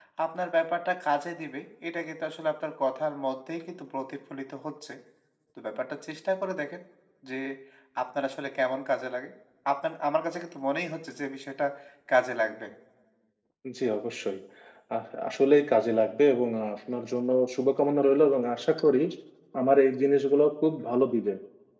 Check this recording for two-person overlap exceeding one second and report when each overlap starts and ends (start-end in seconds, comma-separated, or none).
none